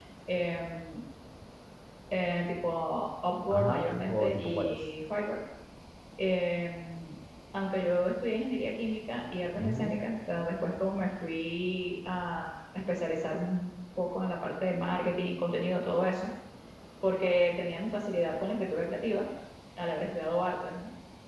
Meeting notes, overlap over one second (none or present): present